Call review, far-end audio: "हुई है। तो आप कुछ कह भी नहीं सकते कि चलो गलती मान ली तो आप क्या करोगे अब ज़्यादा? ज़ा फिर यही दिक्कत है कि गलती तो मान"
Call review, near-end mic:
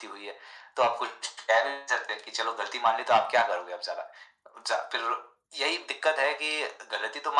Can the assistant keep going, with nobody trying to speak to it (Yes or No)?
Yes